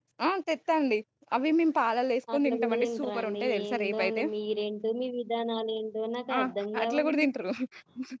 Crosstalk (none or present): present